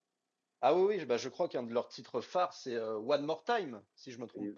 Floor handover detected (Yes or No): Yes